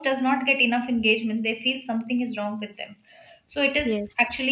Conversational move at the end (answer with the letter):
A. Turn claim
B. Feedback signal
B